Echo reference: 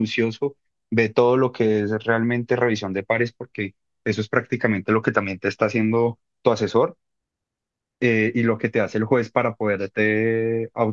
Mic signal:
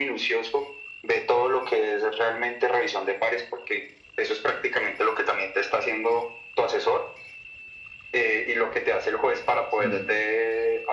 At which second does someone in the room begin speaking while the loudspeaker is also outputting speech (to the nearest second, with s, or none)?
10 s